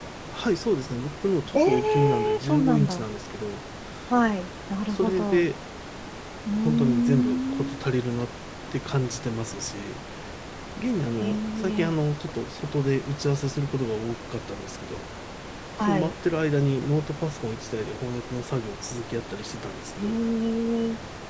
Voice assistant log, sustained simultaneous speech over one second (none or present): present